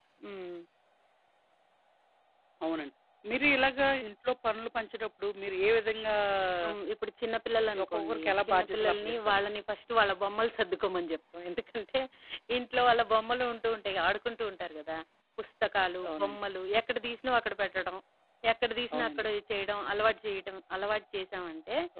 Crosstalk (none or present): present